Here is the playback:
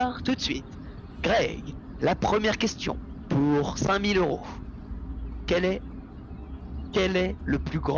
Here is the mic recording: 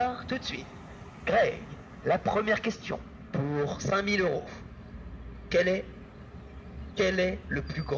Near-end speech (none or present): none